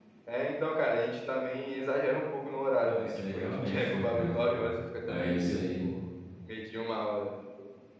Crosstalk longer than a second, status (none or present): present